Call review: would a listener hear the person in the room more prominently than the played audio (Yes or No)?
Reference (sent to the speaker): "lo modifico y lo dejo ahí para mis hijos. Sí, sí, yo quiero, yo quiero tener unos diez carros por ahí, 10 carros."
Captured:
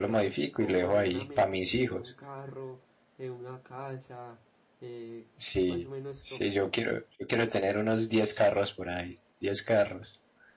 No